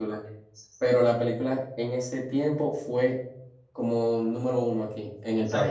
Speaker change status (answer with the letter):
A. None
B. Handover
B